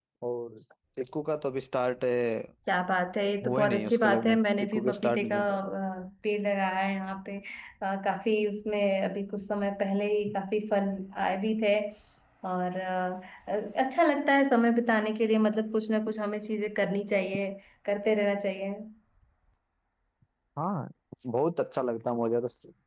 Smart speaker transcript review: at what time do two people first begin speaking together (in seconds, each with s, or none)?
3.4 s